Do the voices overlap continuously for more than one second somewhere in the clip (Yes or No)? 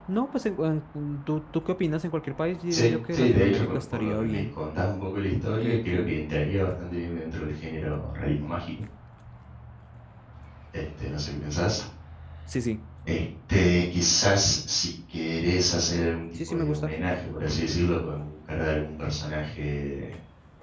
Yes